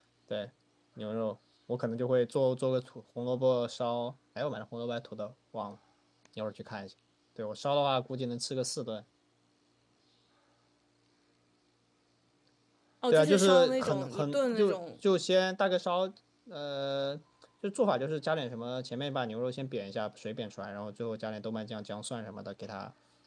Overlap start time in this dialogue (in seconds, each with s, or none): 13.1 s